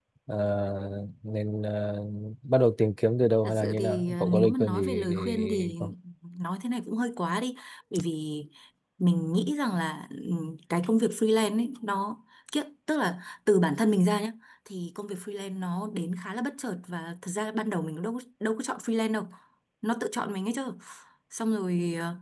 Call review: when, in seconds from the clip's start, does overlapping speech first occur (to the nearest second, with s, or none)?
3 s